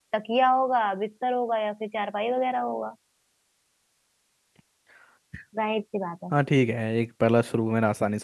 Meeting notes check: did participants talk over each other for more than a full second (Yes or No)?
No